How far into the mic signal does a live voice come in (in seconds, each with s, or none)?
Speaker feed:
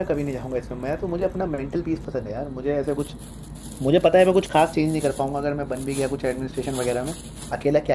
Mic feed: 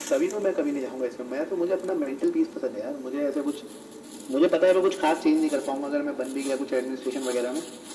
none